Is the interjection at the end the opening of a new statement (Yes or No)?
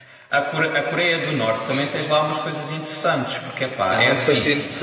Yes